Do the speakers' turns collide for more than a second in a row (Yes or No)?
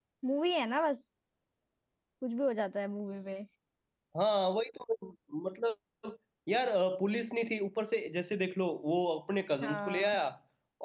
No